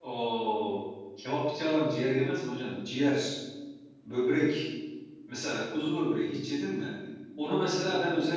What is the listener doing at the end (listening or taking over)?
listening